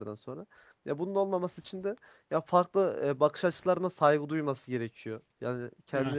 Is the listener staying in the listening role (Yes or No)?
Yes